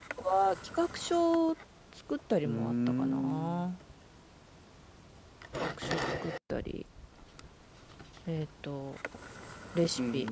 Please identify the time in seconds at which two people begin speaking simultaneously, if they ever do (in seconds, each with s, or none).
2.4 s